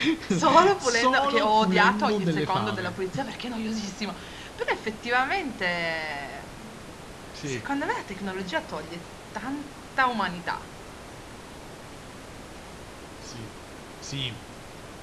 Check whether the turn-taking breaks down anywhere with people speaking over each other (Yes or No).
Yes